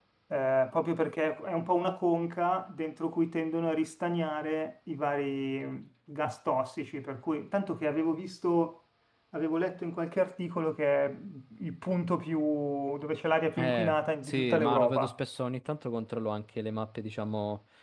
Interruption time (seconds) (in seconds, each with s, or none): 13.6 s